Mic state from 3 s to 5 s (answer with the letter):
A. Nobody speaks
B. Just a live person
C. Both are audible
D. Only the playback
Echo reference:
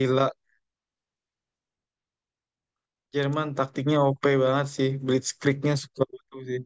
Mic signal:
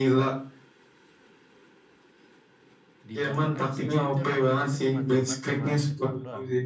C